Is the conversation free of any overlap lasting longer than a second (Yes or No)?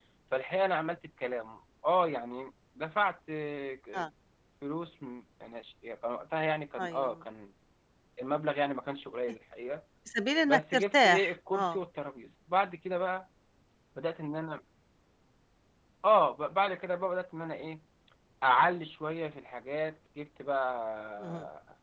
No